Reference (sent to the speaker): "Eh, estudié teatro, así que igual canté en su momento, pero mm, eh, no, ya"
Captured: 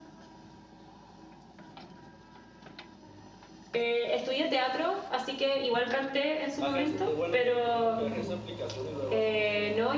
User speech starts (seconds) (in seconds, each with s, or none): 6.6 s